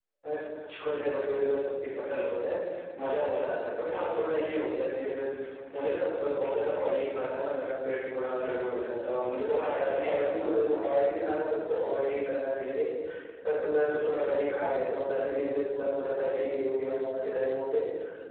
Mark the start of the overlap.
10 s

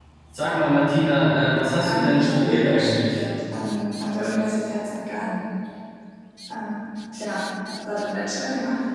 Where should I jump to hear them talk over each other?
2 s

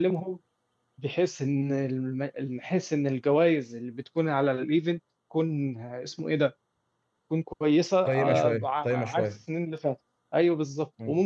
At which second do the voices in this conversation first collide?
8 s

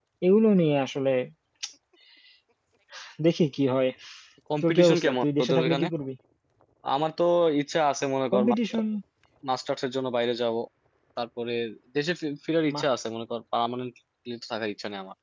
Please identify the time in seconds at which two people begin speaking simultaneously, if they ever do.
5 s

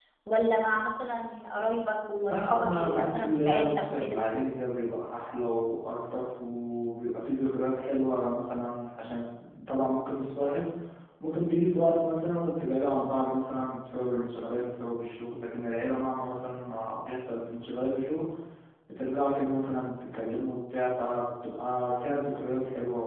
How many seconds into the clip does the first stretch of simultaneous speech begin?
2 s

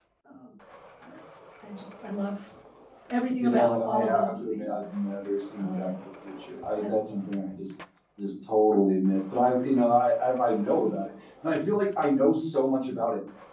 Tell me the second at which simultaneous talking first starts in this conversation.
3 s

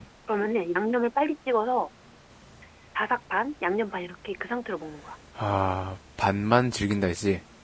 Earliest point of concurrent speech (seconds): none

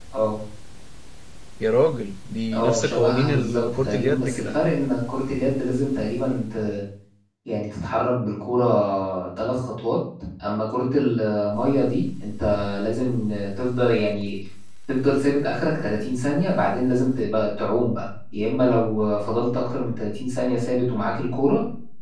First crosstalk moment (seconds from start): 2 s

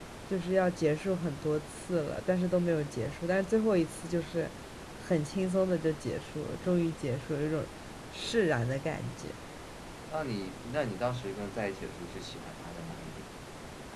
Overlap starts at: none

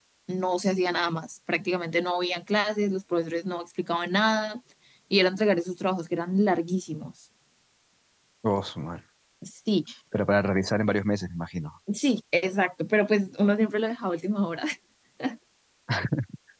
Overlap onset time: none

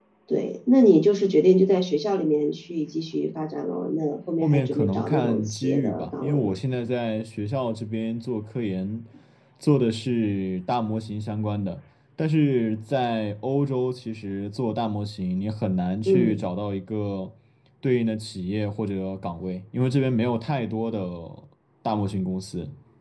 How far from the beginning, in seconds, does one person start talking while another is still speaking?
4 s

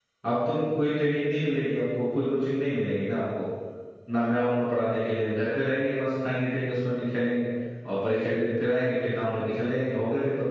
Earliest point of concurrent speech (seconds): none

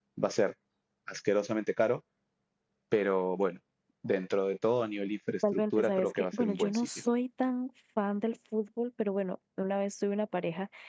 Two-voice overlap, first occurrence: 6 s

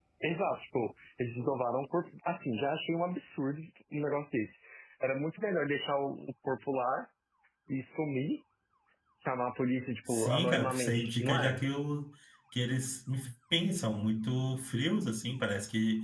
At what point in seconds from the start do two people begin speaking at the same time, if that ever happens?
10 s

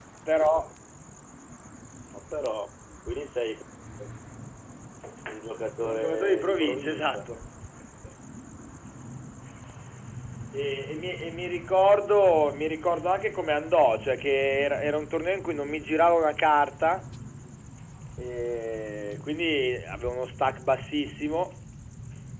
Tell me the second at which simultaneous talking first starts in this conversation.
6 s

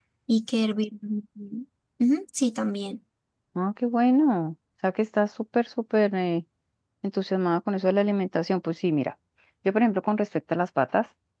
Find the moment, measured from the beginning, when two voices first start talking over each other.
none

